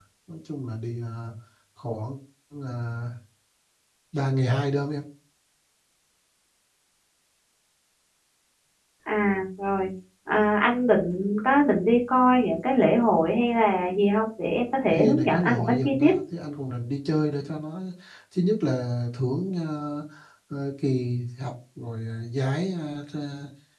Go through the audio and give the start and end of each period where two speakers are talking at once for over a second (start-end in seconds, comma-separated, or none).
14.9-16.1